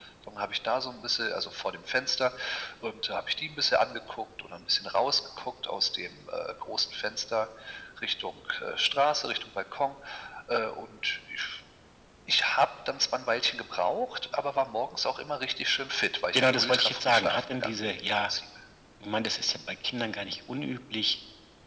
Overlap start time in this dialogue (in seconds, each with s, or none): 16.3 s